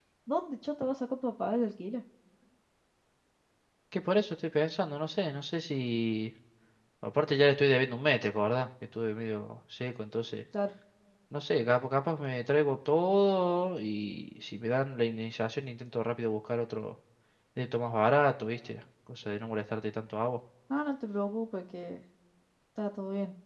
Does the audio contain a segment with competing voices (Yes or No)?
No